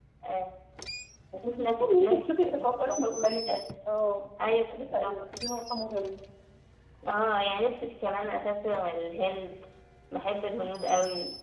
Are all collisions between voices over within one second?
No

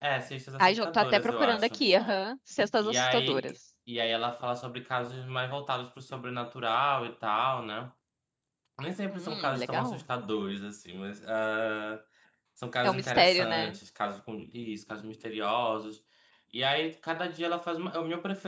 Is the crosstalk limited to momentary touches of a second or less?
No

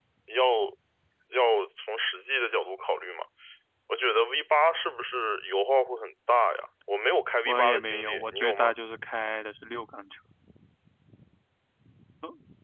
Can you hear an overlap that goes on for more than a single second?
Yes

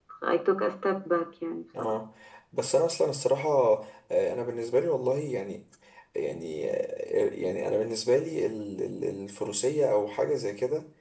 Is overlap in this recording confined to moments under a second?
Yes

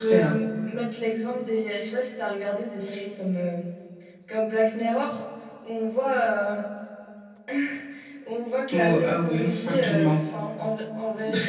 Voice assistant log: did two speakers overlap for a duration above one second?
Yes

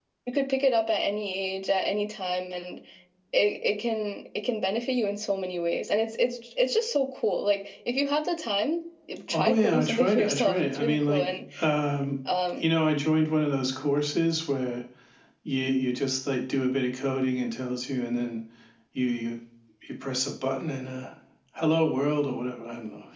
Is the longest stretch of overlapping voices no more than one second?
No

